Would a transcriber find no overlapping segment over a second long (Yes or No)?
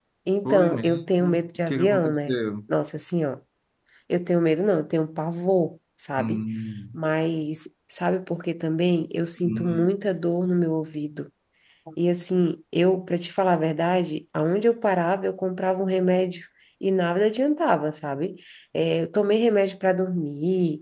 No